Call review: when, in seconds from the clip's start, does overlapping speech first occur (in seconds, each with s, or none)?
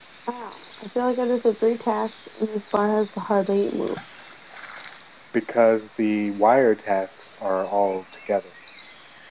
none